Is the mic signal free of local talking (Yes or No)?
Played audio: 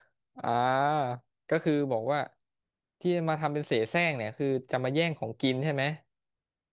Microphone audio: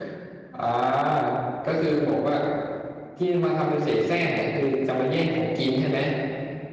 Yes